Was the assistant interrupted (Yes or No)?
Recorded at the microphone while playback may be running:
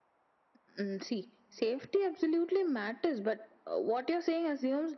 No